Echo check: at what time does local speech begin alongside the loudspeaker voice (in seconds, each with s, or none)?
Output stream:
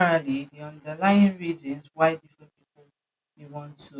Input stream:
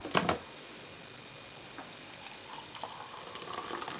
none